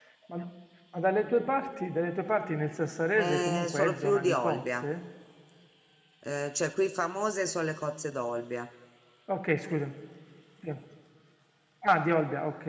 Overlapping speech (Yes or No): Yes